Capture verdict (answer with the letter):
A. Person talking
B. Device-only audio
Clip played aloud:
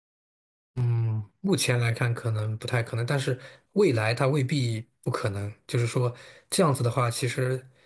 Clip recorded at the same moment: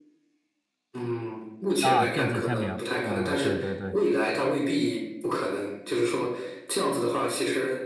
A